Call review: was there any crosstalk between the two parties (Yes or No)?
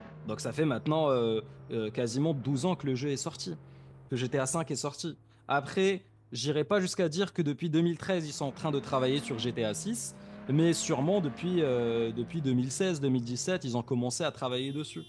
No